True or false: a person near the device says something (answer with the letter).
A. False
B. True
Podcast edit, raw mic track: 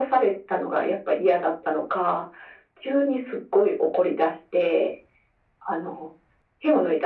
A